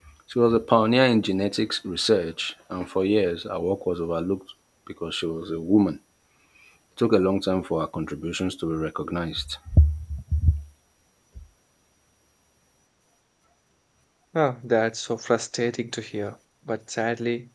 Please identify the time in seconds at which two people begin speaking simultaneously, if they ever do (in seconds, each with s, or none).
none